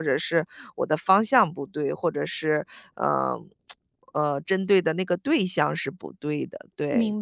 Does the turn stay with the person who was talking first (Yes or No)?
No